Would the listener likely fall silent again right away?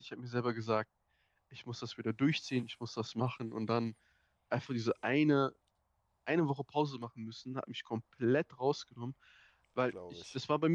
Yes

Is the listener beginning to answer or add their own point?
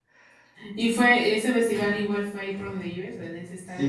Yes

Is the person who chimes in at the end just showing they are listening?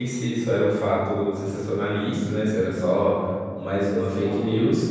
Yes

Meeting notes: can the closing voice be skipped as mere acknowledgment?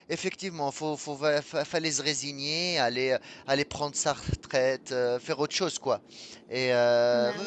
Yes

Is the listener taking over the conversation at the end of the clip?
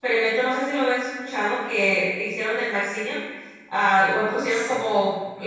No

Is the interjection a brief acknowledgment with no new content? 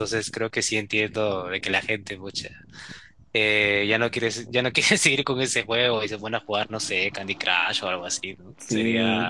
No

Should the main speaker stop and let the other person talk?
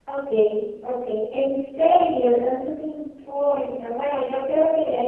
Yes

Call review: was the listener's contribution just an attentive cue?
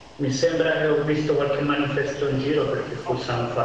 Yes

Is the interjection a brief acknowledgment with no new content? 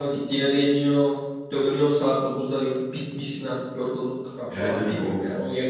No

